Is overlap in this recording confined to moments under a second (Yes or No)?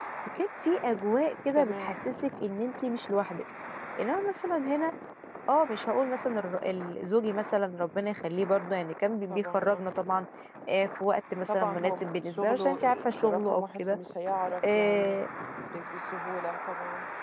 No